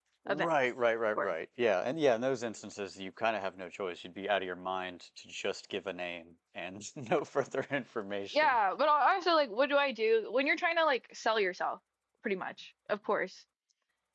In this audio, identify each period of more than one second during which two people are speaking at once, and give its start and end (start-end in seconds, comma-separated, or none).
none